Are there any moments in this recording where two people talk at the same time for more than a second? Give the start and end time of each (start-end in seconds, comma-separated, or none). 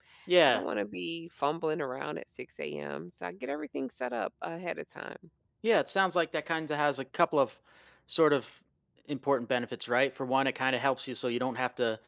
none